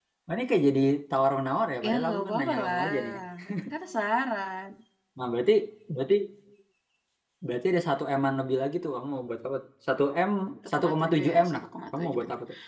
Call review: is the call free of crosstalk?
No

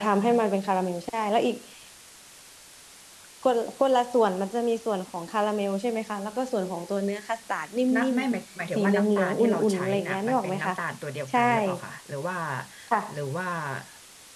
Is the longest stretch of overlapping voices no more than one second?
No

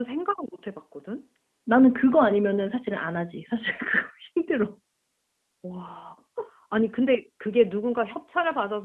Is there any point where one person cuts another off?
No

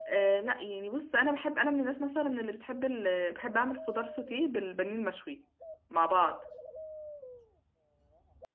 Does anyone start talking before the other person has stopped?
No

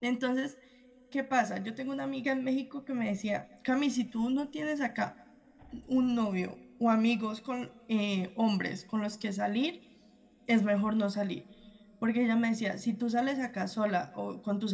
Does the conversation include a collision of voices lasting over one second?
No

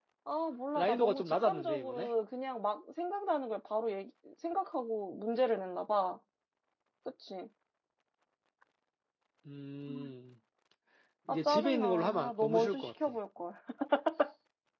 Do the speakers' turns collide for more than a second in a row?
Yes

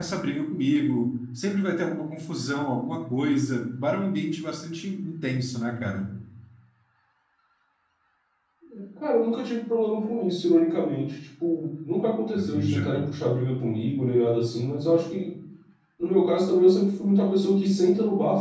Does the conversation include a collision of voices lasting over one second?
No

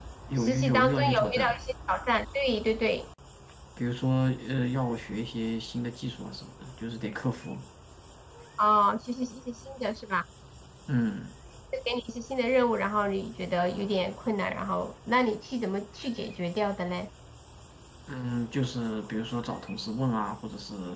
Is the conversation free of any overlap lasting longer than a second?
No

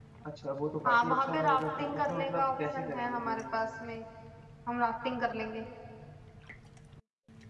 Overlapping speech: Yes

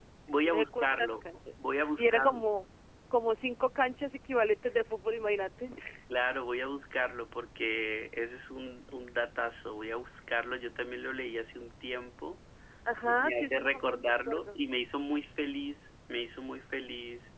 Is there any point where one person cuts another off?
Yes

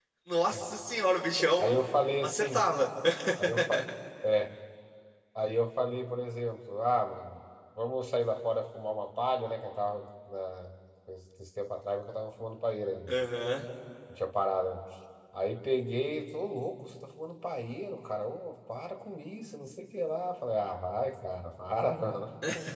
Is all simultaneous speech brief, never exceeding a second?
Yes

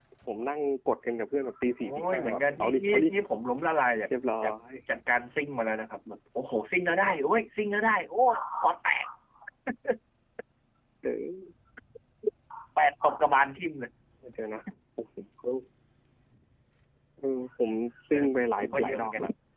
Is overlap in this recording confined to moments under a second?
No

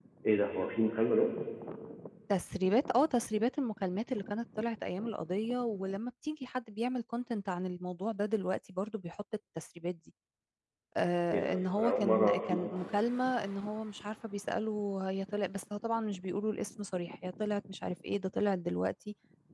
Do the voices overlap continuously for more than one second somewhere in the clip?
Yes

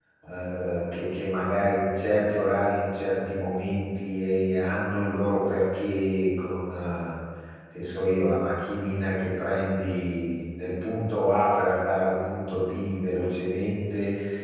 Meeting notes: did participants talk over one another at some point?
No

